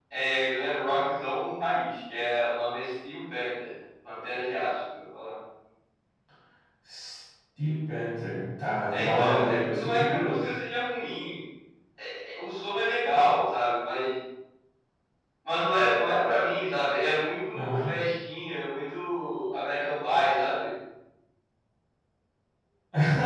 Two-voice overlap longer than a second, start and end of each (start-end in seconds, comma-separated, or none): 8.9-10.4